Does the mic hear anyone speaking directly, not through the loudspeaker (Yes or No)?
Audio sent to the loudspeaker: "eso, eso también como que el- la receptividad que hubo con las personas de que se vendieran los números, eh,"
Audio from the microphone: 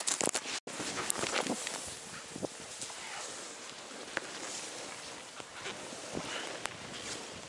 No